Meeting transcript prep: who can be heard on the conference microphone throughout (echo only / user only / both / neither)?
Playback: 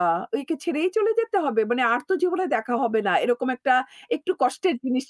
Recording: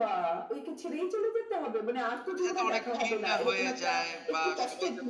both